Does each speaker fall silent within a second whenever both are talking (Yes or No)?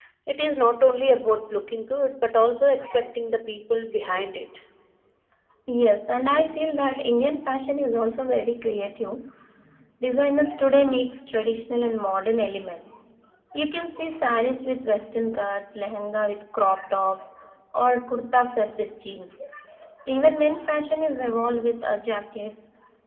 Yes